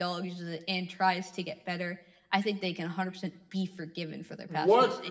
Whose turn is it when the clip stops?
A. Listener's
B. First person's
A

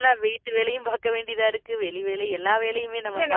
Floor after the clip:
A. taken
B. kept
A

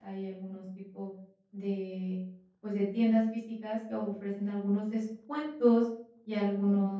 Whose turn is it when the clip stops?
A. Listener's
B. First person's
B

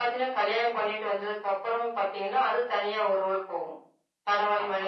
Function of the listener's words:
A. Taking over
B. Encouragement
B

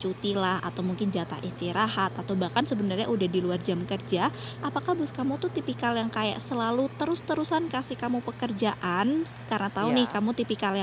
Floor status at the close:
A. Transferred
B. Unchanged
B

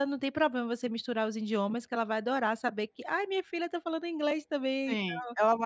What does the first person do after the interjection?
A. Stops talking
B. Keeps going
A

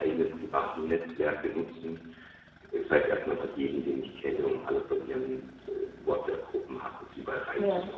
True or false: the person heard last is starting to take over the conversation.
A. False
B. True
A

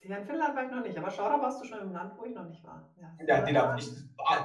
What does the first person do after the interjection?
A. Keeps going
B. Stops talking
B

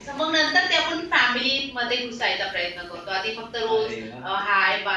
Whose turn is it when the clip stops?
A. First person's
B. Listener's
A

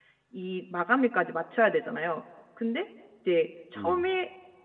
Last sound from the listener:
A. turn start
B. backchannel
B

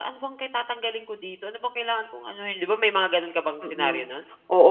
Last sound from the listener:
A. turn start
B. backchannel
A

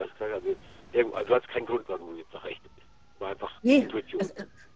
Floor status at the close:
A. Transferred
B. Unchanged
A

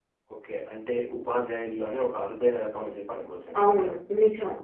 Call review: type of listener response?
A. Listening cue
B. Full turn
B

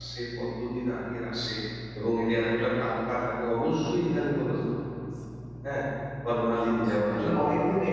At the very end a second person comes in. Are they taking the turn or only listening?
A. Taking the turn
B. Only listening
A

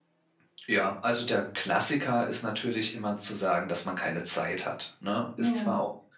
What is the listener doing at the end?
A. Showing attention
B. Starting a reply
A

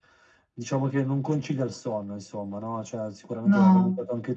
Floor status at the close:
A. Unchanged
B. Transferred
A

